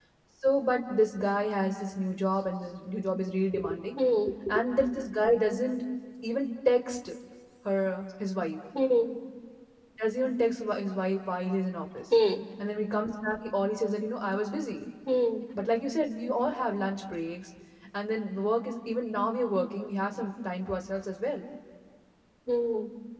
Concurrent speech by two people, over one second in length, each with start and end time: none

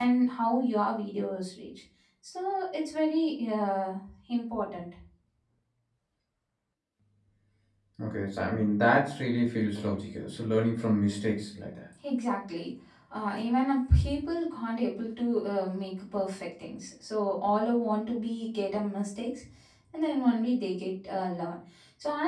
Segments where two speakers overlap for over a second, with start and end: none

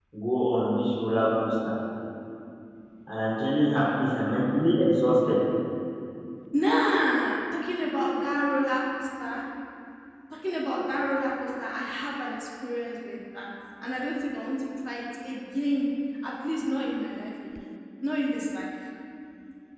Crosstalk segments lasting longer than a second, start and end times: none

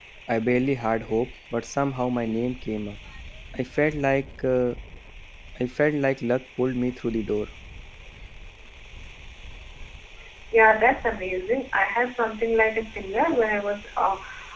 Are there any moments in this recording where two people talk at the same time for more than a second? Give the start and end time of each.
none

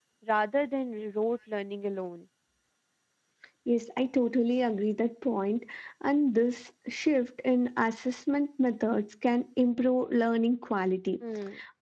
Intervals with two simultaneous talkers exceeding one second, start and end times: none

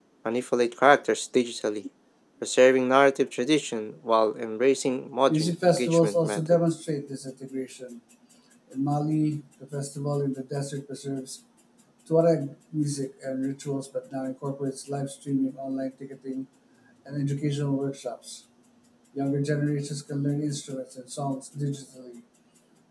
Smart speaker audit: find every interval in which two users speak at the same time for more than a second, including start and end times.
5.3-6.6

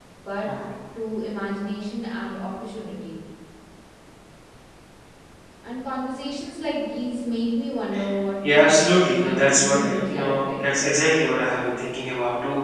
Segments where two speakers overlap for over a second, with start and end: 8.5-10.6

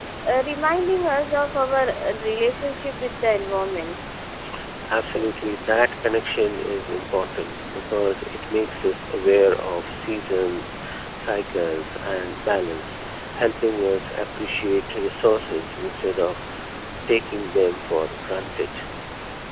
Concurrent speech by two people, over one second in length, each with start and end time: none

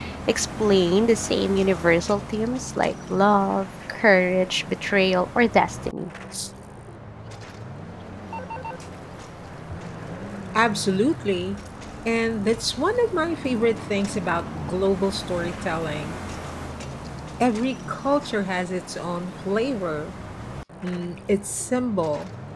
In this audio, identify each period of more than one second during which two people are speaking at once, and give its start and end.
none

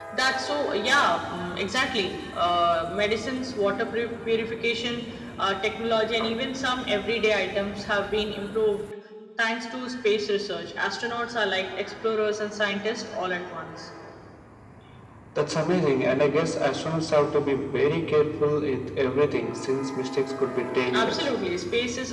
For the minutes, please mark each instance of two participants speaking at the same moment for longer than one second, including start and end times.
none

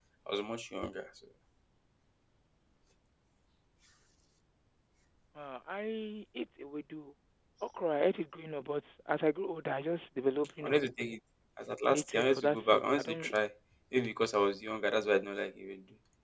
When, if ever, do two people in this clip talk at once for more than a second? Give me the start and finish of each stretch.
11.9-13.3

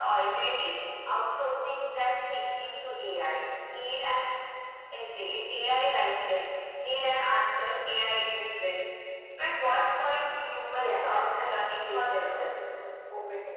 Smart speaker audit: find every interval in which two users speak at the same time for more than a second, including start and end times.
10.8-12.6

